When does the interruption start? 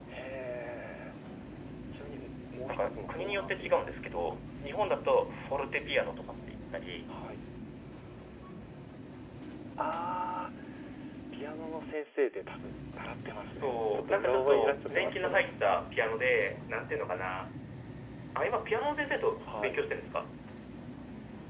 2.7 s

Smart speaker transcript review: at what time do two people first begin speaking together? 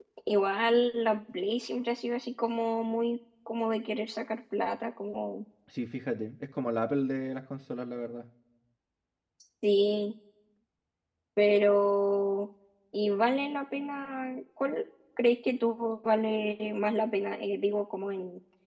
none

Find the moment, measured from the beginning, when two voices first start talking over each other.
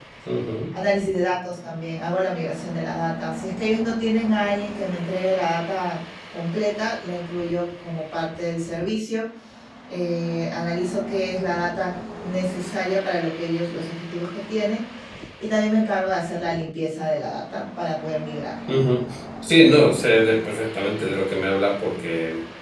none

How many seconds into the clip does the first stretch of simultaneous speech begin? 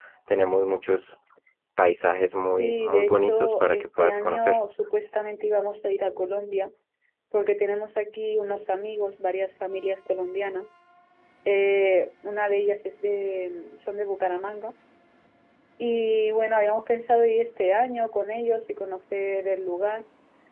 2.6 s

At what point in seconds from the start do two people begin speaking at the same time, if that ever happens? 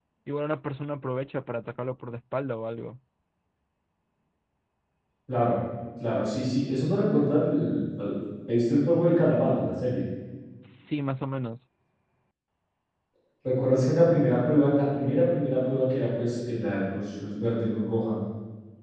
none

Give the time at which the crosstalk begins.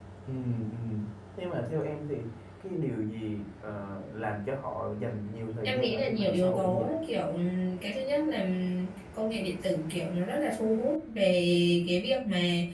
5.6 s

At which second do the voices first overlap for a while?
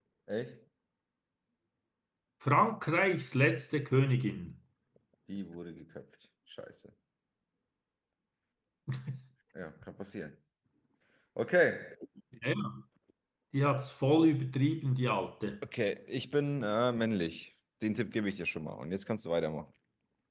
none

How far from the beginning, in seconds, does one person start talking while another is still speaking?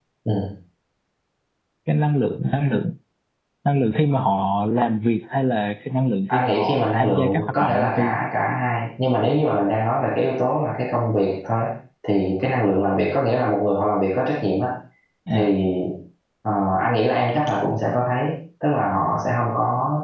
6.3 s

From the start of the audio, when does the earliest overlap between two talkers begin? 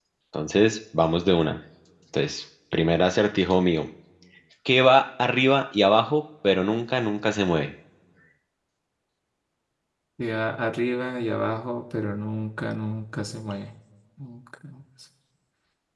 none

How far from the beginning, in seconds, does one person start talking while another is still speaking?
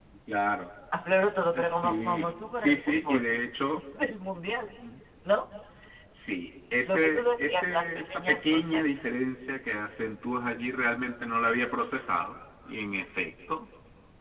1.5 s

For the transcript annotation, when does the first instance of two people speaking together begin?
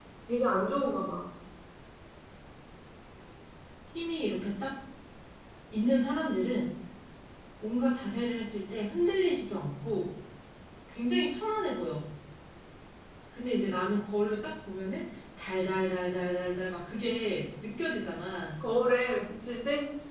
none

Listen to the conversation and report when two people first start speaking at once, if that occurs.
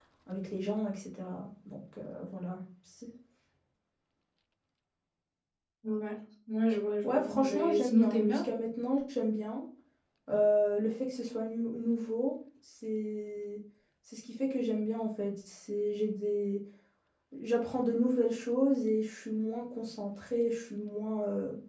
7.0 s

